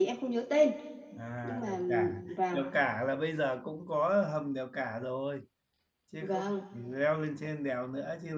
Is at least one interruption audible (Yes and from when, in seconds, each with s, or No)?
Yes, from 1.4 s